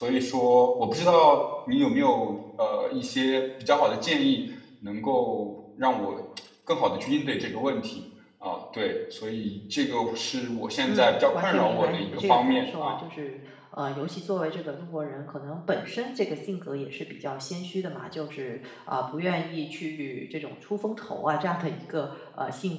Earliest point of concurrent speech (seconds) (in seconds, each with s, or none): 10.8 s